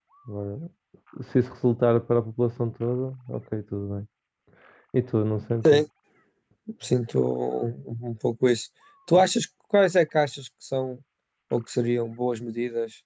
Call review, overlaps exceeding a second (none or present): none